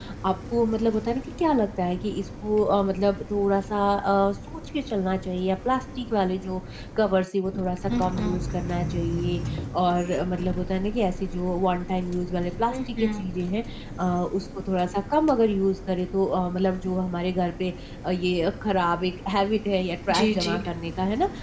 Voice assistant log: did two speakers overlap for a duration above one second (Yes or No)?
No